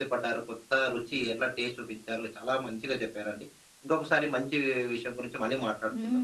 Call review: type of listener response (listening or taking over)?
taking over